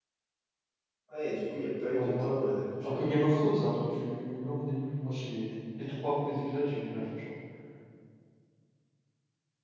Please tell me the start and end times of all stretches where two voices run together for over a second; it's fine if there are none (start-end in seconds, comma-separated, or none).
none